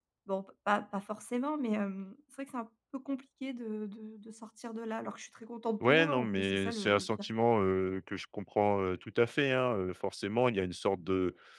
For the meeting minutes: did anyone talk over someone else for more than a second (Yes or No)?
Yes